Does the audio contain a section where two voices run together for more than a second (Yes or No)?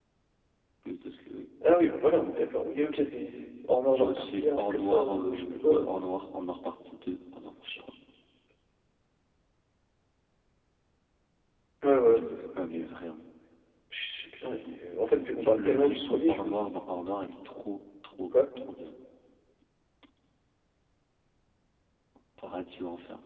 Yes